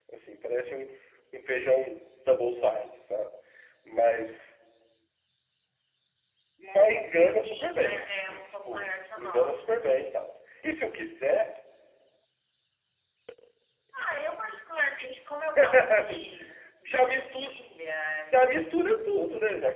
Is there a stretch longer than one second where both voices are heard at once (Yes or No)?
Yes